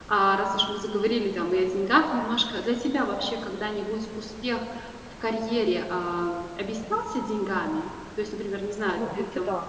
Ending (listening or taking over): taking over